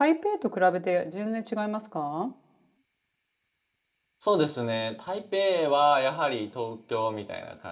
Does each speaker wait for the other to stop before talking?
Yes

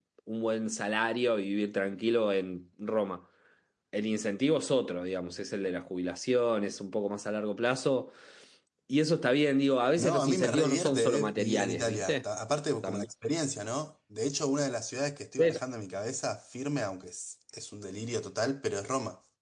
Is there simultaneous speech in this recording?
Yes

